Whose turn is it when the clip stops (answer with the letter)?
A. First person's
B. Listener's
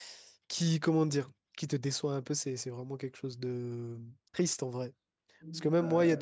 A